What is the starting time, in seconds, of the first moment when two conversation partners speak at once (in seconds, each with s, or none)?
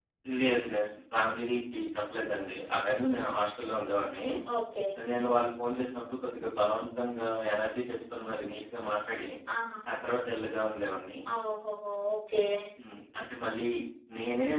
none